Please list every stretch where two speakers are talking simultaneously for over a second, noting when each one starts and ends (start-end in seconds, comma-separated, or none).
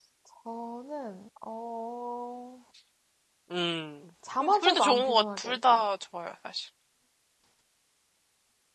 4.4-5.9